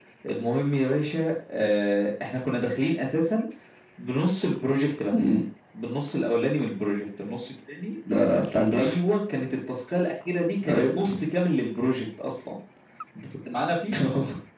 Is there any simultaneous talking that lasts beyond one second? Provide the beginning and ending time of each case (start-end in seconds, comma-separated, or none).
none